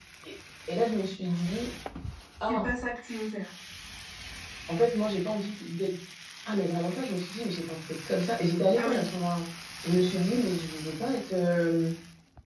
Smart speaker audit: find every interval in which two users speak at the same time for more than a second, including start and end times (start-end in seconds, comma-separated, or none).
none